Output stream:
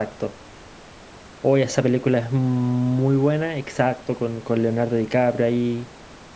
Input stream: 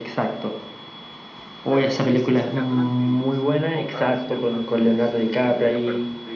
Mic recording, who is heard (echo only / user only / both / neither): both